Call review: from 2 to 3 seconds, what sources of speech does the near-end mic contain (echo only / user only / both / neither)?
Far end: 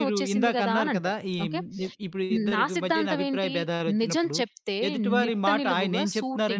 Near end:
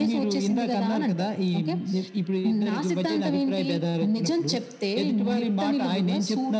echo only